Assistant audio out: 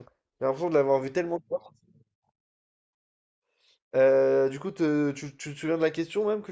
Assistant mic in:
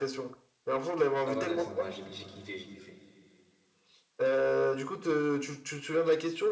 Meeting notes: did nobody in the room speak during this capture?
No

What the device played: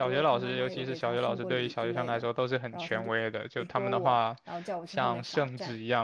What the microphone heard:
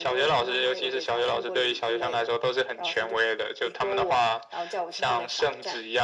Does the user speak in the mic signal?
No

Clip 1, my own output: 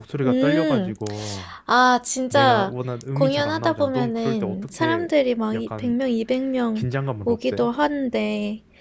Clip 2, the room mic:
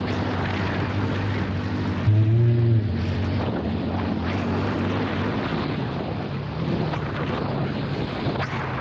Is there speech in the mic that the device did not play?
Yes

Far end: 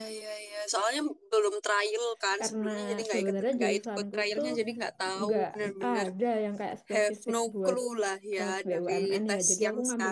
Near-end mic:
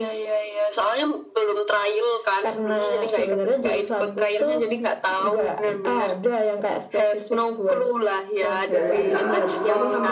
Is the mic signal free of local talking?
No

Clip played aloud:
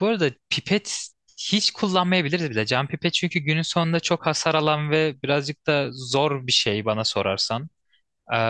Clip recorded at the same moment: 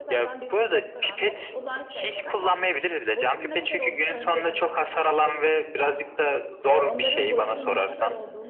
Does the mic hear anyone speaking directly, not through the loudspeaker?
Yes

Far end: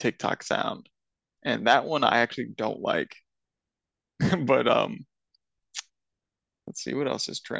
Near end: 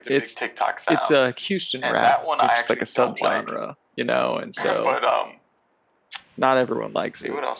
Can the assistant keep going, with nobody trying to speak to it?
No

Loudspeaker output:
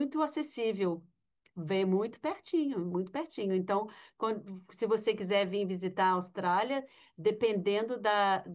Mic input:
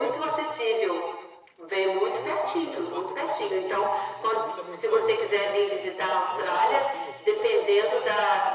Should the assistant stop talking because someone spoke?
Yes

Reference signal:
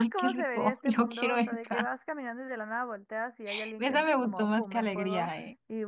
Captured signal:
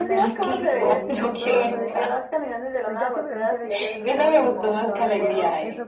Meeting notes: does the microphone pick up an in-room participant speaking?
Yes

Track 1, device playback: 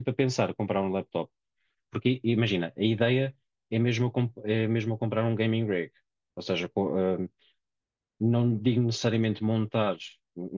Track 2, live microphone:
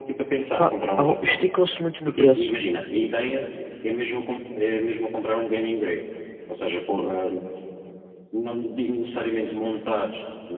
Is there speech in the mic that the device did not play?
Yes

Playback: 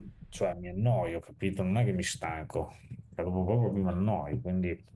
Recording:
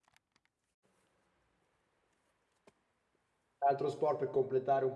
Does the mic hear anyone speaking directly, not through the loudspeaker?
Yes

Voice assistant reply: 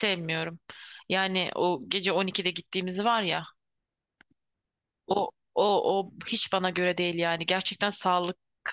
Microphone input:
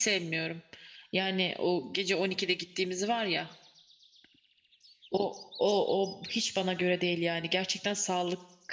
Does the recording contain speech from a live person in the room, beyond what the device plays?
No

